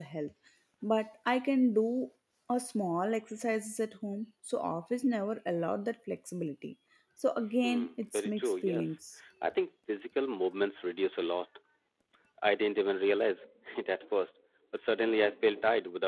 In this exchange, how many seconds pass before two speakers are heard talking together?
7.6 s

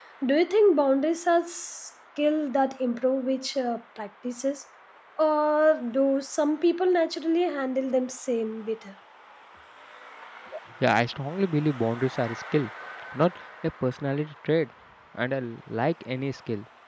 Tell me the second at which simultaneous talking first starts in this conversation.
none

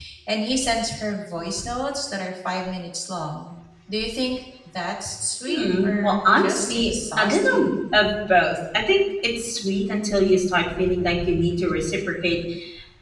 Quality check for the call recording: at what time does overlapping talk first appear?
5.5 s

